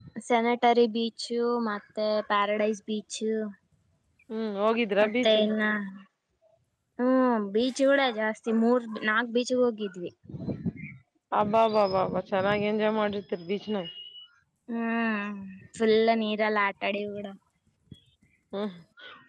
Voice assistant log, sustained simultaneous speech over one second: none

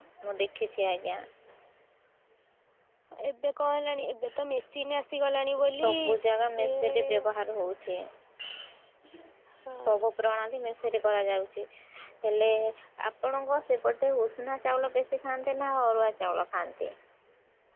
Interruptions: present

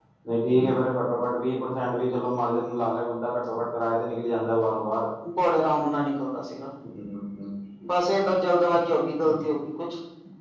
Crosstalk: none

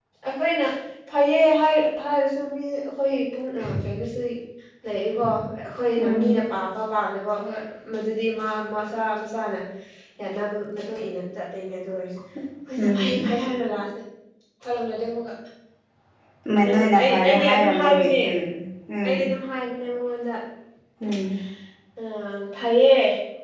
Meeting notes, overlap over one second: present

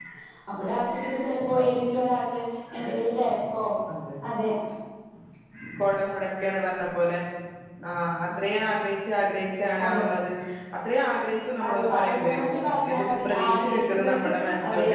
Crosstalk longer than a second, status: present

